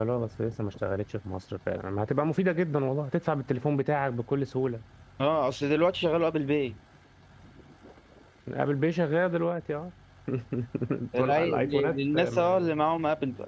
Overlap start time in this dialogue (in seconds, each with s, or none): 11.2 s